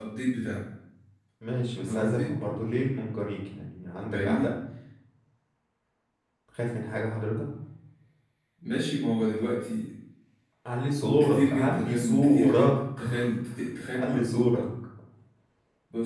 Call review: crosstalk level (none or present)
present